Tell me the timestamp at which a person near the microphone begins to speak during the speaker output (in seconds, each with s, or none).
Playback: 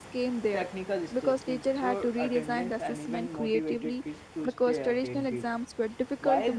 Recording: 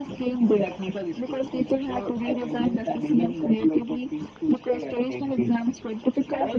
none